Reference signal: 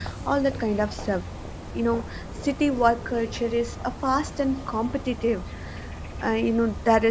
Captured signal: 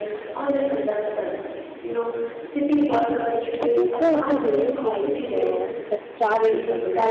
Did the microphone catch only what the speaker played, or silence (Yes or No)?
No